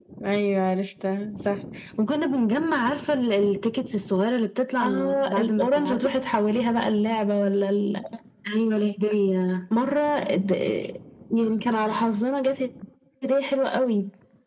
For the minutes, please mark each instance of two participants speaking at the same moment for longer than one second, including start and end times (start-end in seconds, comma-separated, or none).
4.8-6.1